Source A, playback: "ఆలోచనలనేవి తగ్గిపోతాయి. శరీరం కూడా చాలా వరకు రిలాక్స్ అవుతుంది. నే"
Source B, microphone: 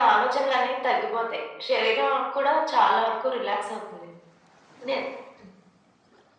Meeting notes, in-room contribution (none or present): none